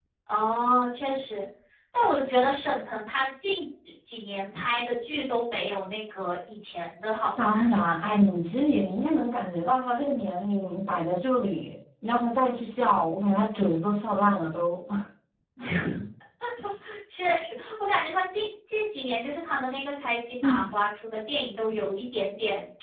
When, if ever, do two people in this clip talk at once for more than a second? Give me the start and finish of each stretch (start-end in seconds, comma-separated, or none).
none